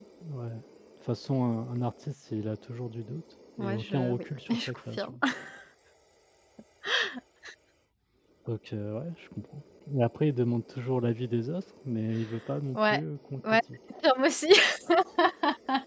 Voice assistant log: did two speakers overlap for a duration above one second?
Yes, from 3.6 s

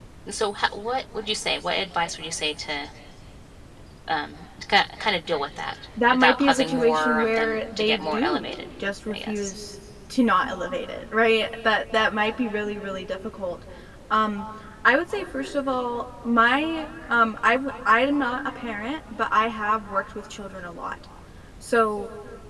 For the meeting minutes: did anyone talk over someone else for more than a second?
Yes, from 6.1 s

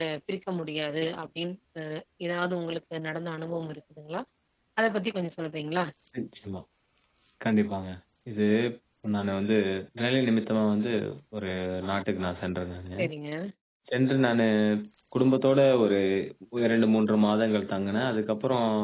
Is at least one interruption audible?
No

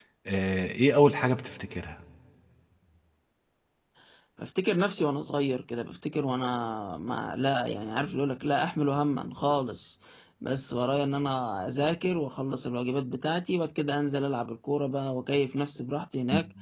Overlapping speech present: No

